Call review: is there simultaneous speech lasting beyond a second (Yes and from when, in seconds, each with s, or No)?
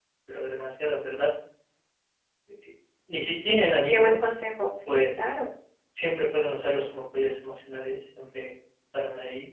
No